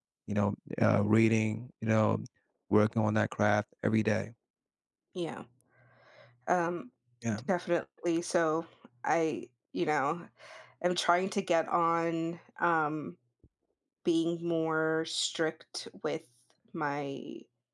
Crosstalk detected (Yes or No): No